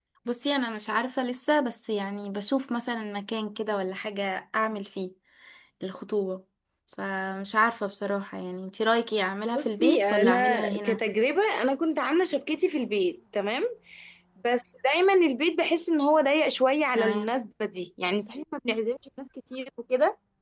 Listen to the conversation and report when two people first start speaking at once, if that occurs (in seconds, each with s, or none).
9.5 s